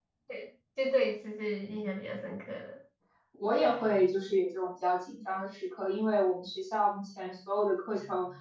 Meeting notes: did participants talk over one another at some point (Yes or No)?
No